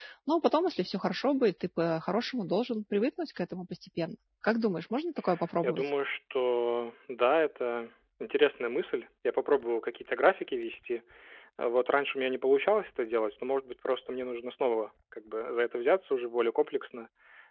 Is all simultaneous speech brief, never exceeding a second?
Yes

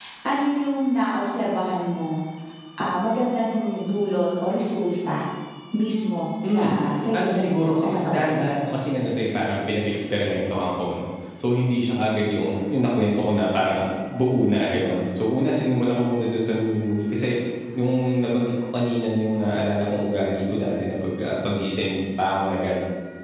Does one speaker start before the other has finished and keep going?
Yes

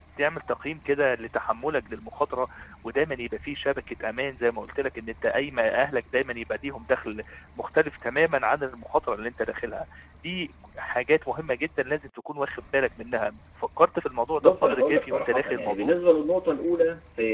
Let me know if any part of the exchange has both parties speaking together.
Yes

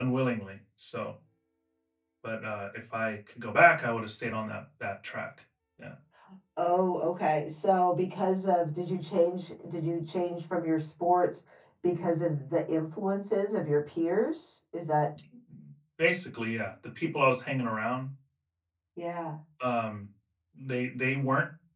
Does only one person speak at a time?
Yes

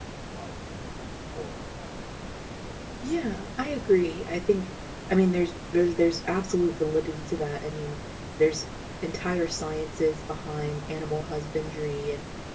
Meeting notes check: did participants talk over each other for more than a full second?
No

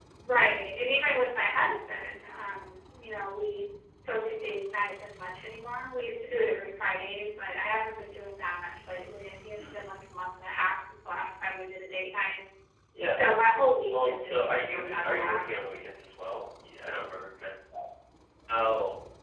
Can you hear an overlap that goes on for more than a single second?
Yes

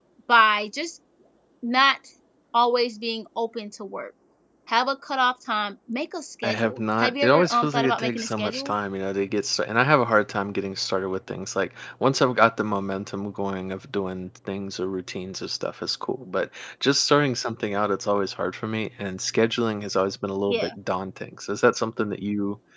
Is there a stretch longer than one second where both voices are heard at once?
Yes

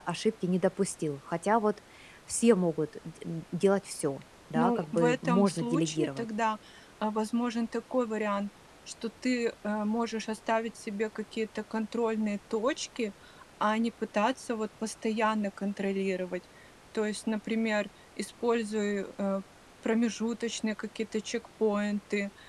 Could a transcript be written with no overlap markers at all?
No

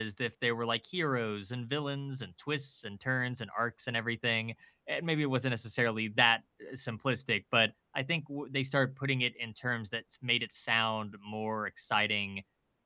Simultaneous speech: No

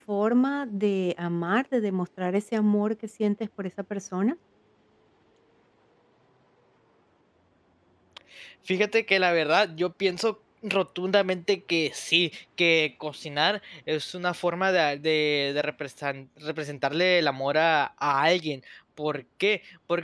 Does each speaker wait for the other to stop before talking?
Yes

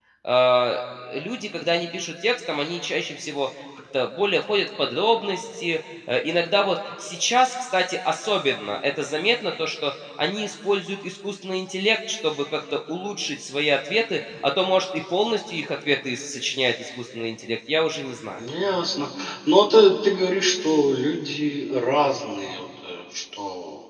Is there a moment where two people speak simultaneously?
No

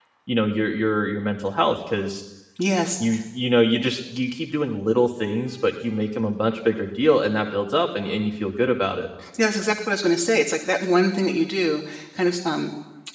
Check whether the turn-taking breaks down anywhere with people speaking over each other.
No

